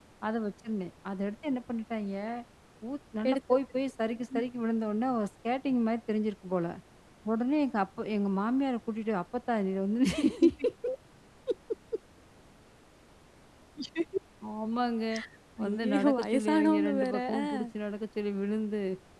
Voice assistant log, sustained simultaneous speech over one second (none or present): present